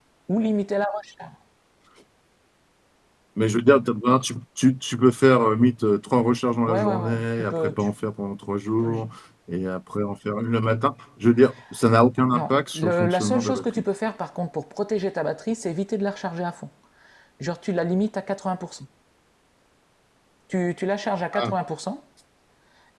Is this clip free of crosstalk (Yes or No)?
No